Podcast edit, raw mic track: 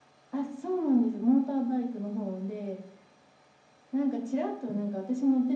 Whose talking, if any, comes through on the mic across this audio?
echo only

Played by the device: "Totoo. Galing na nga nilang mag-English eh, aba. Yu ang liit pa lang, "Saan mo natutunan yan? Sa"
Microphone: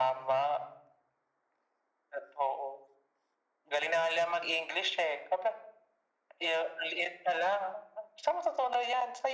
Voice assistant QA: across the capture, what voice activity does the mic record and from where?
echo only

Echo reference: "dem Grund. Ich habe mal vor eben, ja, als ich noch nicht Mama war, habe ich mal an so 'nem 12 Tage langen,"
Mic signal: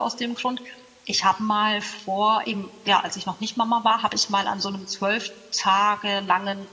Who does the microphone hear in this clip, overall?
echo only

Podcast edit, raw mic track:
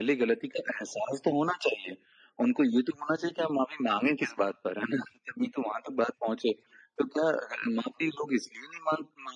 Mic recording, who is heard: echo only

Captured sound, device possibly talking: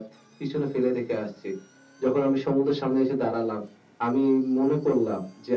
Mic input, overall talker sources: echo only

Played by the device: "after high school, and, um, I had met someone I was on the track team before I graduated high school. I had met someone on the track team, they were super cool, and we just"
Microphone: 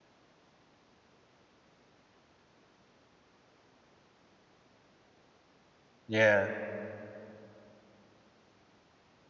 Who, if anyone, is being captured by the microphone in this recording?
user only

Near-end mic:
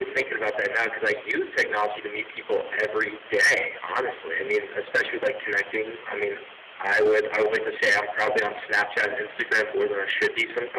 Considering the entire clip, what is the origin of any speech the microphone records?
echo only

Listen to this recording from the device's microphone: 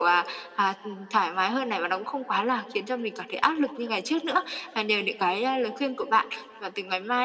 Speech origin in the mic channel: echo only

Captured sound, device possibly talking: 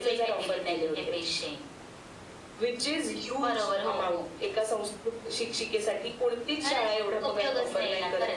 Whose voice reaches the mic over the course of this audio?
both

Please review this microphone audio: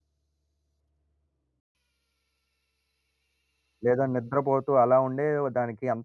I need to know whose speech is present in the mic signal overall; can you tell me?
user only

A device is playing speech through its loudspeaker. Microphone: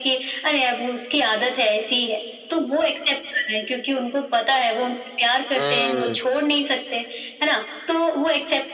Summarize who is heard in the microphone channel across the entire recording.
both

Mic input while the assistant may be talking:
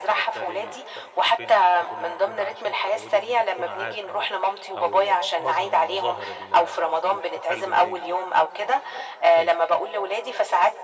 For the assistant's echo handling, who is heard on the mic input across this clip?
both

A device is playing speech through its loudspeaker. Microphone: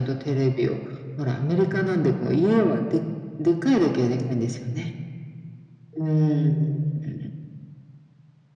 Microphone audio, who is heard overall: echo only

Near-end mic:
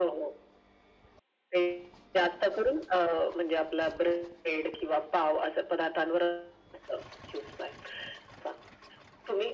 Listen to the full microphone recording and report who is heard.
echo only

